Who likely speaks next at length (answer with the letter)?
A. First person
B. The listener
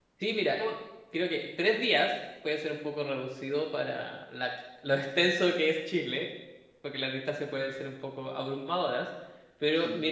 A